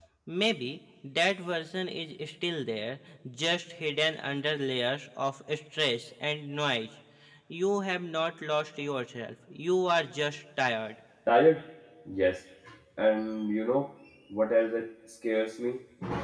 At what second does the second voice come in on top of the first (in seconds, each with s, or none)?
none